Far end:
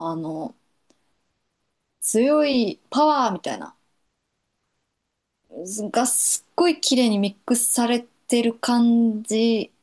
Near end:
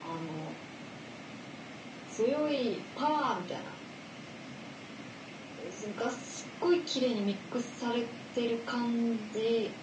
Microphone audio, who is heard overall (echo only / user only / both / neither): echo only